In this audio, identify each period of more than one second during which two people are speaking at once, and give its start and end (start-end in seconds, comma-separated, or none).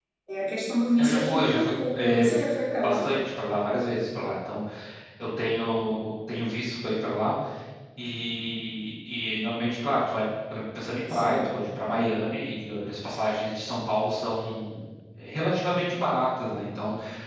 1.0-2.2